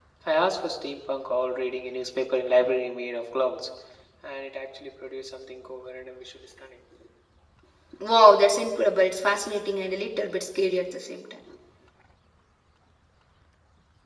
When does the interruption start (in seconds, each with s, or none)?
none